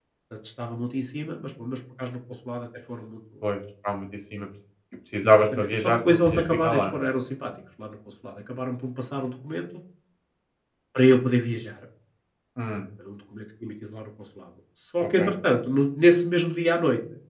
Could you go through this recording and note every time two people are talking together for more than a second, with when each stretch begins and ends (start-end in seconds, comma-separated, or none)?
5.2-7.0